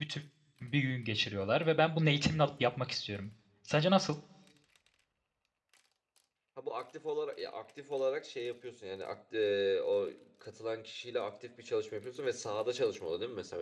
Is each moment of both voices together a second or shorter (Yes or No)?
Yes